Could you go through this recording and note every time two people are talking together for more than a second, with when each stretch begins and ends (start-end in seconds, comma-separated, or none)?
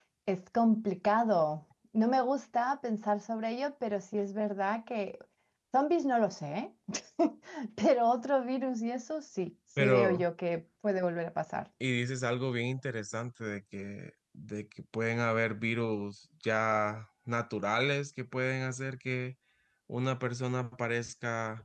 none